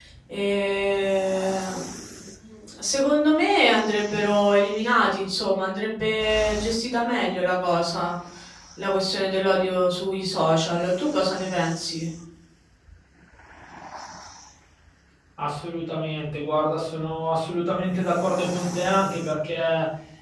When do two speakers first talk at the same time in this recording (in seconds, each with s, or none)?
none